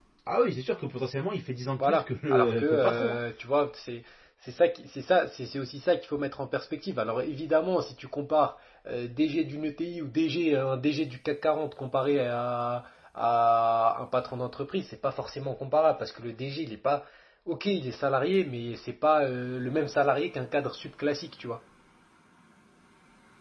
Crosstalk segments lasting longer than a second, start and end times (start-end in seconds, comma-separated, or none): 1.8-3.2